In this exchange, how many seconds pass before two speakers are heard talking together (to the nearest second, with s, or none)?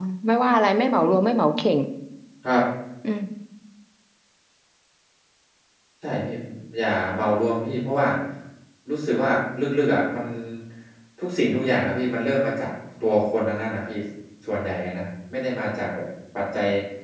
none